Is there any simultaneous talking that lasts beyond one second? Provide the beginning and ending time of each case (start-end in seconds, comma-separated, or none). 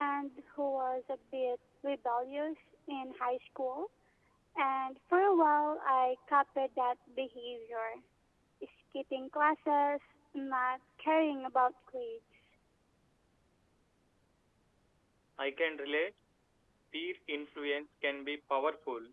none